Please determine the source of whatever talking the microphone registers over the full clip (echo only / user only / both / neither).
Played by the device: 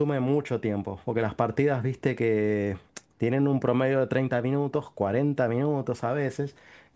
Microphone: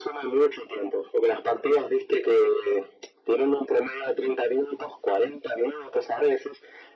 echo only